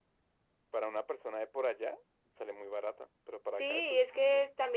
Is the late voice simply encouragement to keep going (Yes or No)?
No